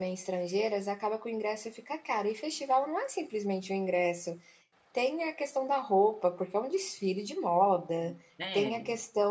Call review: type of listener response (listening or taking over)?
listening